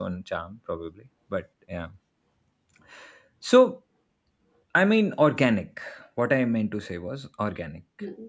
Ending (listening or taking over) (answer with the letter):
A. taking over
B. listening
B